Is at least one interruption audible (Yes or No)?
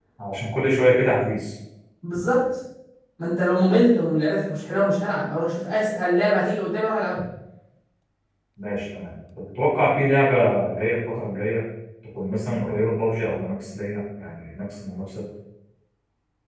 No